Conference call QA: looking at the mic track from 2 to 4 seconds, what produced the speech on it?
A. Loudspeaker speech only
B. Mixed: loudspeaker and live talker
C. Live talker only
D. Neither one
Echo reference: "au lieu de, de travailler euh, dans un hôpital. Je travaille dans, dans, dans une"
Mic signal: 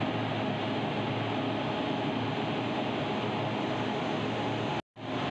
D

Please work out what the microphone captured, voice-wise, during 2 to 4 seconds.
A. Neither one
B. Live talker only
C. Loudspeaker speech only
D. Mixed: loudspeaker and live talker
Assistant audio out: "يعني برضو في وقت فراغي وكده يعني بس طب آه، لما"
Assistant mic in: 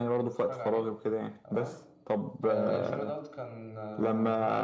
D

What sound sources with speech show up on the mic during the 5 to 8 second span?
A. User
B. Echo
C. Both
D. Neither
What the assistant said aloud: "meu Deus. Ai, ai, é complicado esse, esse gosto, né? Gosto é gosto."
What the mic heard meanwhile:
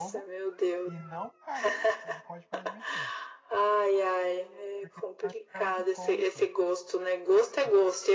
C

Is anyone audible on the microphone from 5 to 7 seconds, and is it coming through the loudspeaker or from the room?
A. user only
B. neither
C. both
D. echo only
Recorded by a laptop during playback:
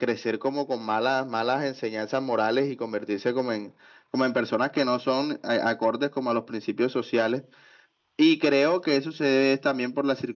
D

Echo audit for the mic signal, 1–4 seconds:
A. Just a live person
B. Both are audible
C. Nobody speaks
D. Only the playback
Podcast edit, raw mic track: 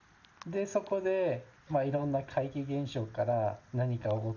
A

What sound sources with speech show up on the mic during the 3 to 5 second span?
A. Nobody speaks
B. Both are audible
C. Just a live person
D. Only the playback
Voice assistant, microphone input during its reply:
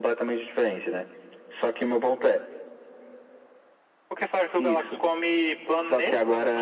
D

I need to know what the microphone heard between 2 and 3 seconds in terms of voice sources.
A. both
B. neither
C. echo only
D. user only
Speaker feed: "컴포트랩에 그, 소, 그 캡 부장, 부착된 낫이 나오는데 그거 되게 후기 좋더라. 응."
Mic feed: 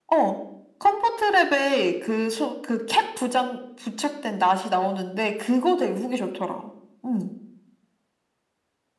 C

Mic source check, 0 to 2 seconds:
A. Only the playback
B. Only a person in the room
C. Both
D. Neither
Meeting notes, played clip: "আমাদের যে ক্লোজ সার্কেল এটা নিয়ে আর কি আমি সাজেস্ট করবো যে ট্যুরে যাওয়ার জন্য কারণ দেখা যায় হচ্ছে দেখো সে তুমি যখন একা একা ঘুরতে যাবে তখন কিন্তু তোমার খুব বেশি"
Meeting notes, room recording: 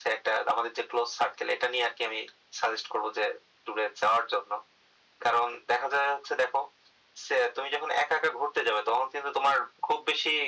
A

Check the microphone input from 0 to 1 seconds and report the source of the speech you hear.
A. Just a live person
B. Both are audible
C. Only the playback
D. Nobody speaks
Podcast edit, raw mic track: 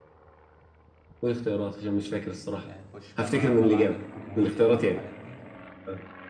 D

